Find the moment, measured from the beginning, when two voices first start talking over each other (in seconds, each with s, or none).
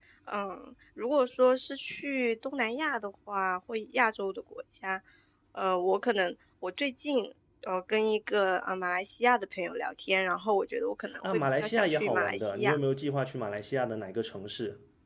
11.2 s